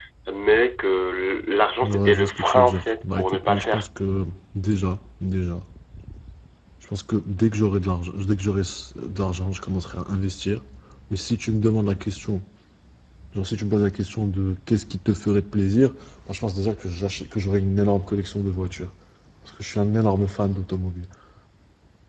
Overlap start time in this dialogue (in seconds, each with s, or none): 1.8 s